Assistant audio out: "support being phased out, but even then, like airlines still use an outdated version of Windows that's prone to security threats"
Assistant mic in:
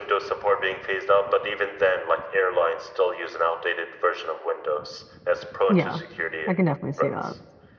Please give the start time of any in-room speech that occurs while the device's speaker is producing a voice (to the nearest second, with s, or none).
6 s